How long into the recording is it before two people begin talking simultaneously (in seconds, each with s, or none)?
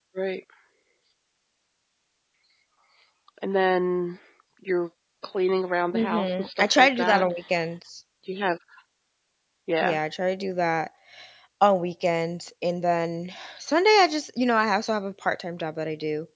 5.9 s